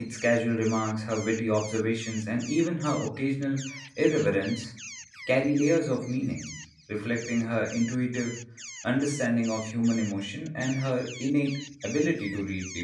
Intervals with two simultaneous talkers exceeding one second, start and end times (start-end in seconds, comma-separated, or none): none